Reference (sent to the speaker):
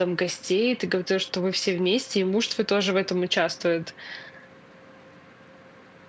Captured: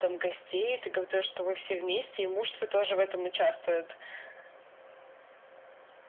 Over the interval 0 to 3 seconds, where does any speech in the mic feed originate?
echo only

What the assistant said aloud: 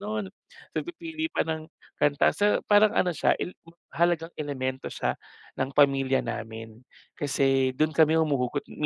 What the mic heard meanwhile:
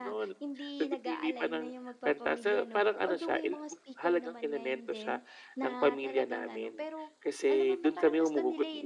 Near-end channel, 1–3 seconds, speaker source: both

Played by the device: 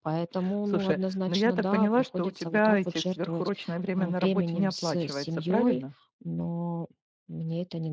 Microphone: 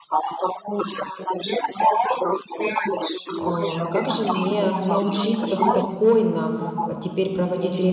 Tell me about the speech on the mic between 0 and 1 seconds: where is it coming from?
echo only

